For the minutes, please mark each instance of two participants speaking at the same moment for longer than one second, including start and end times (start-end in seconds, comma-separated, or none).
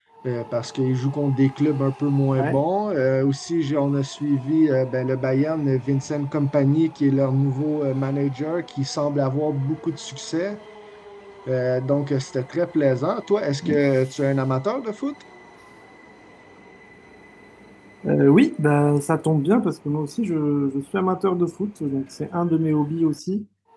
none